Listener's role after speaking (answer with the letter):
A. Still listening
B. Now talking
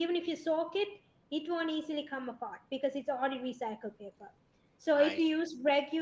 A